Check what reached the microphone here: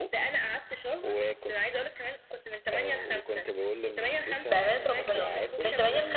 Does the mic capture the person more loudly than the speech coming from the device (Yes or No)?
Yes